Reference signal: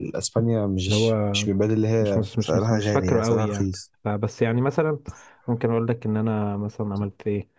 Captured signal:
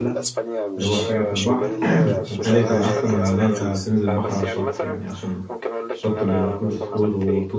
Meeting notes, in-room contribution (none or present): present